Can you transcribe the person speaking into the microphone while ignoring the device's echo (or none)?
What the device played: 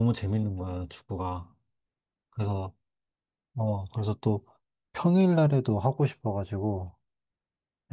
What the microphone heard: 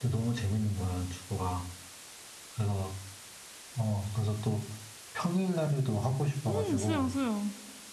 음, 수영, 수영.